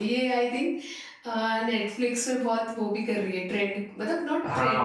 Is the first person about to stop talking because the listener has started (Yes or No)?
Yes